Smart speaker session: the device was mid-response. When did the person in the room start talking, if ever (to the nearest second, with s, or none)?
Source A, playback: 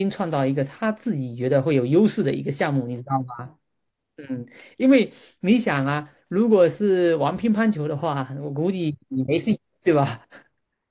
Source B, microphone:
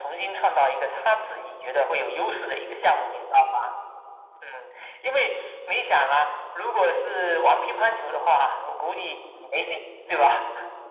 none